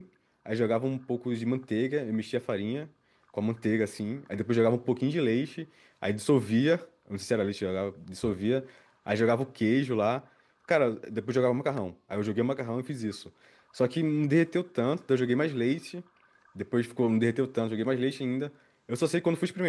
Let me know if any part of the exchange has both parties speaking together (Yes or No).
No